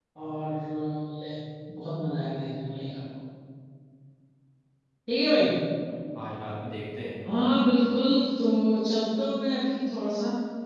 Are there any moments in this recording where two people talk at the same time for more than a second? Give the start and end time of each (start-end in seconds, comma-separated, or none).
none